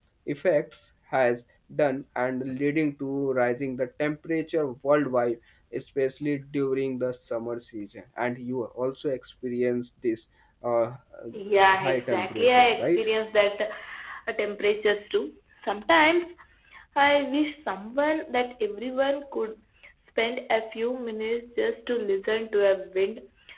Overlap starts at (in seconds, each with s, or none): 11.7 s